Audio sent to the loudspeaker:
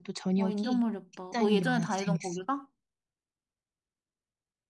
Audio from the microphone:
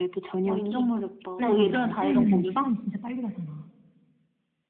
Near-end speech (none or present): present